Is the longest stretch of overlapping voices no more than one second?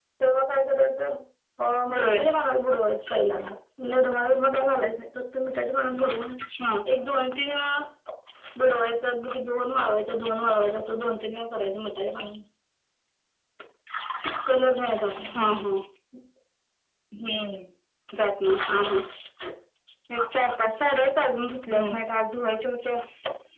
Yes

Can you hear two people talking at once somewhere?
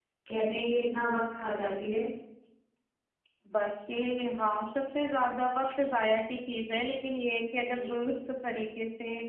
No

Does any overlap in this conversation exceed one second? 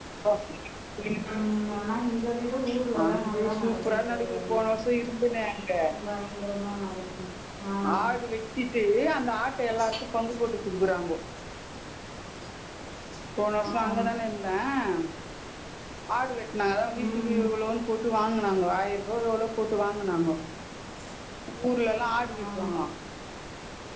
Yes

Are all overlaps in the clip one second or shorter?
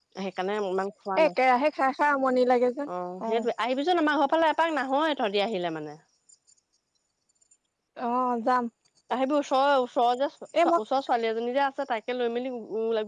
Yes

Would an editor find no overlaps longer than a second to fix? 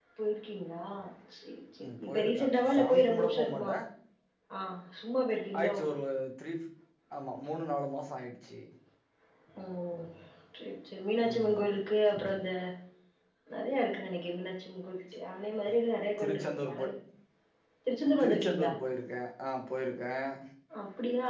No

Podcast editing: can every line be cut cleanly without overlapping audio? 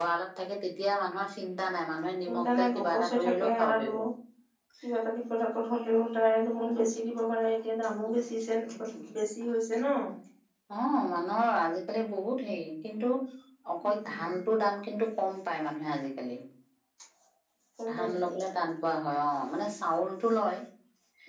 No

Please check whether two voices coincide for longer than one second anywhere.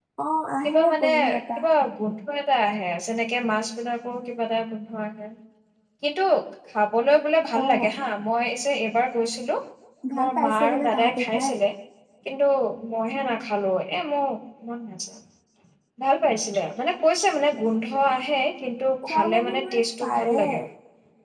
Yes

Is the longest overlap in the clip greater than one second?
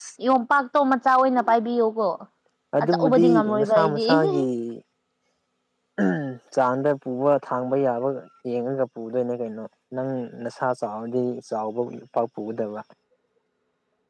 Yes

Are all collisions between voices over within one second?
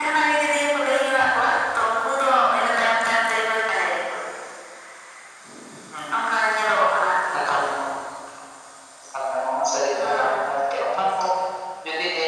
Yes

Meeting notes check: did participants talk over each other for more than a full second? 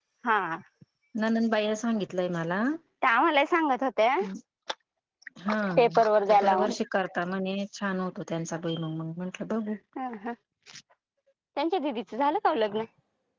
No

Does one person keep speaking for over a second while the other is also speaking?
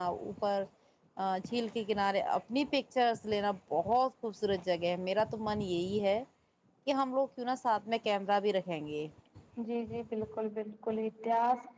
No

